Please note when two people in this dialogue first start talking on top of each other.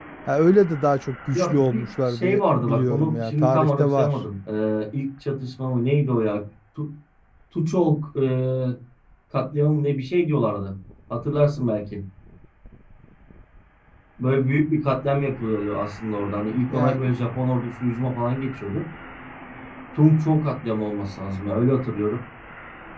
1.3 s

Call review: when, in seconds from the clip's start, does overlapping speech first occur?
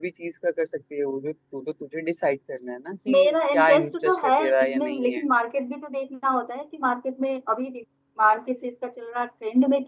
3.1 s

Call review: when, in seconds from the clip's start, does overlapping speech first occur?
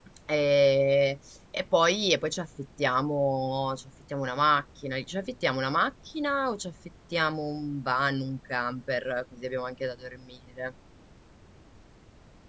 none

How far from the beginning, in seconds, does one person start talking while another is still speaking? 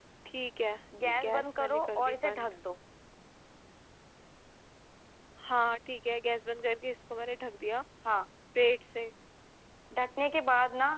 1.0 s

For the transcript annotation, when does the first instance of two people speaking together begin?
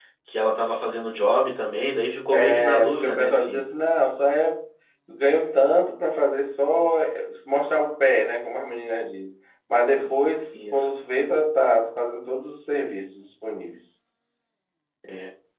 2.3 s

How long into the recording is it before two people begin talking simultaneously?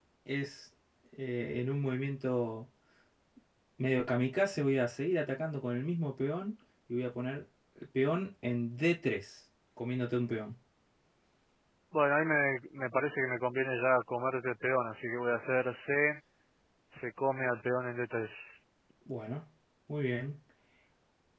none

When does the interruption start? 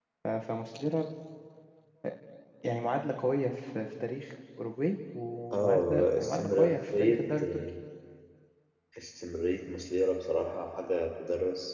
5.5 s

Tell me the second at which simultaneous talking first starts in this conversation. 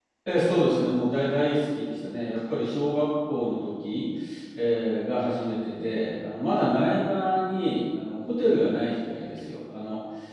none

